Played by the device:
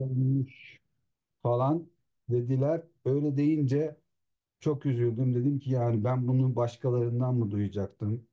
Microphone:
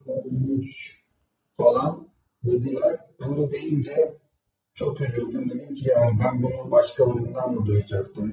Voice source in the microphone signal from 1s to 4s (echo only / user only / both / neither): echo only